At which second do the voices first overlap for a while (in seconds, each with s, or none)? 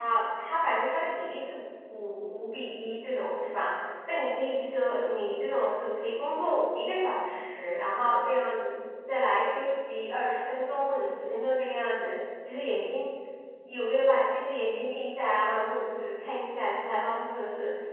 none